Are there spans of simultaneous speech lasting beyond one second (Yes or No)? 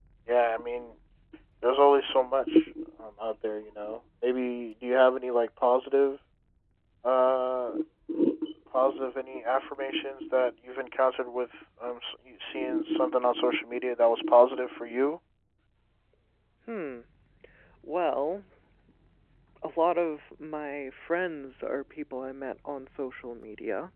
No